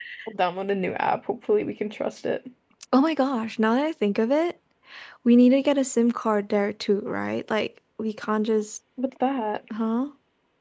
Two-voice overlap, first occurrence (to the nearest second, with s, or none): none